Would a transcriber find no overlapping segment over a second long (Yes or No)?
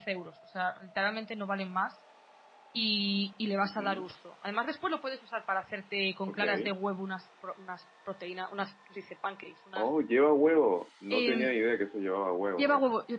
Yes